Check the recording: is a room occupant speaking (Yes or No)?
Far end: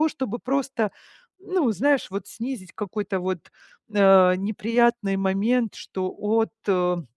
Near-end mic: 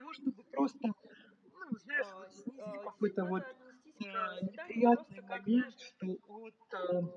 Yes